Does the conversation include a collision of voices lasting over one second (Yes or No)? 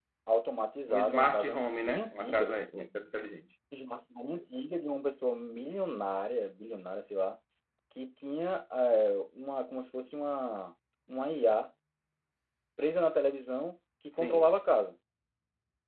Yes